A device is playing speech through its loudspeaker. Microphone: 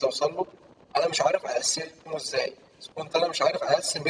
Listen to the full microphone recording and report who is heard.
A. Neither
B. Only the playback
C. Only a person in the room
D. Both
B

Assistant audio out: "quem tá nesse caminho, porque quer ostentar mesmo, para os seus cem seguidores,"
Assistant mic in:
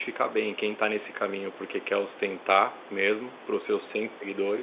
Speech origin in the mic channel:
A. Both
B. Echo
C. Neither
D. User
B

